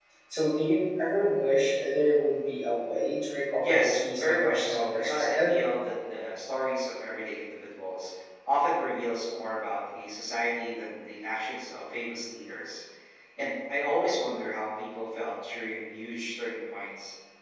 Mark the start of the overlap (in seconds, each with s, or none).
3.6 s